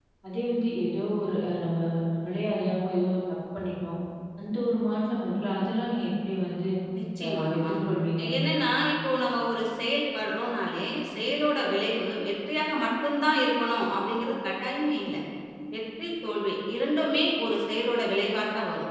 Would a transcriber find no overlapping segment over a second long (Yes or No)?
Yes